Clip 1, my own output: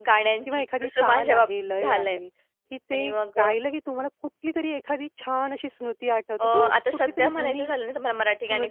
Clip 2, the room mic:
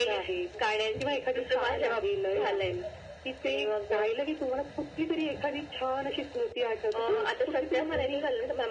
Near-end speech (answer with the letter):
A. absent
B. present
A